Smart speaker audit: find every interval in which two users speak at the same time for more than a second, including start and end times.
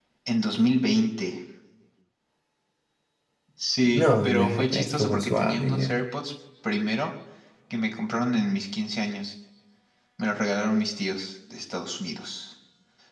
3.9-5.9

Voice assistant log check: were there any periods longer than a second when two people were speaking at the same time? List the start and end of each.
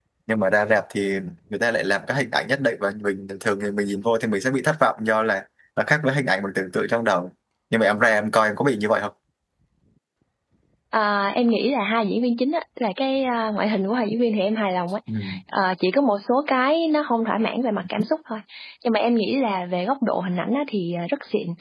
none

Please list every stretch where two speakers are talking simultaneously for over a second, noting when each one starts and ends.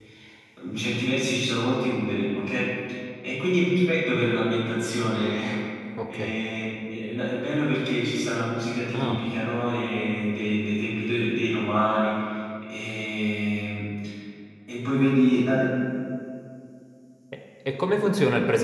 none

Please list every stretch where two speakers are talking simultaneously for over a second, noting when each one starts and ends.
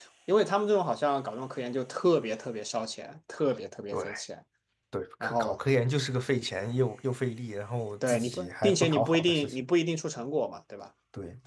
8.1-9.7

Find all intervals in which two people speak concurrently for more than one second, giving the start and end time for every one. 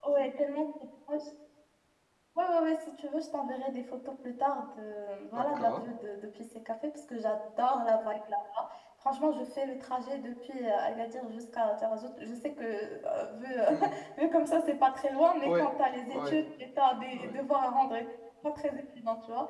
none

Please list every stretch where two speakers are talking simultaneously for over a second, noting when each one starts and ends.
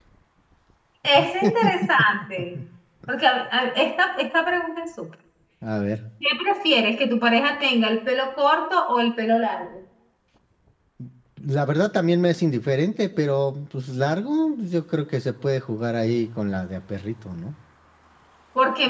none

